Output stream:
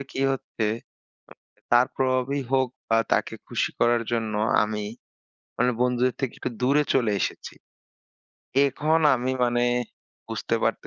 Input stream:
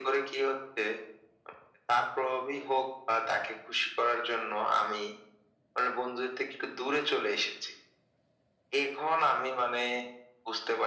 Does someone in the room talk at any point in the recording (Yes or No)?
No